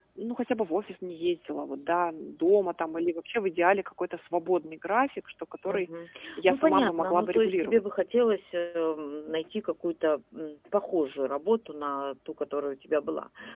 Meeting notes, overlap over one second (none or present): present